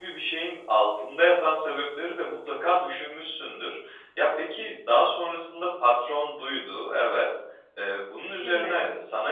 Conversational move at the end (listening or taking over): listening